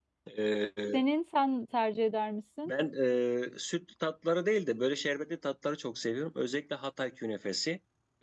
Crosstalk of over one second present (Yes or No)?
No